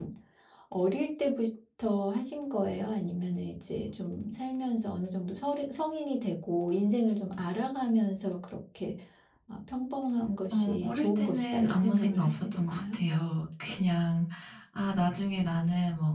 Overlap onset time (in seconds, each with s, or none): 10.5 s